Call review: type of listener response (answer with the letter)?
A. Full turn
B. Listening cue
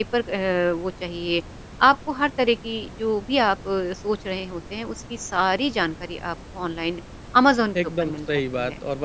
A